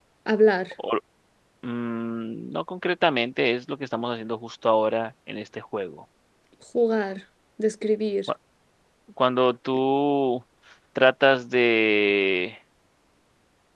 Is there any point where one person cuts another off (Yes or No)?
No